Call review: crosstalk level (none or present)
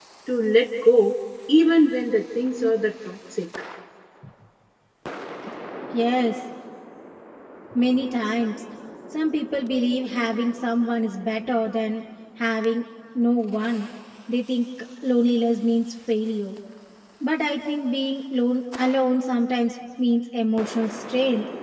none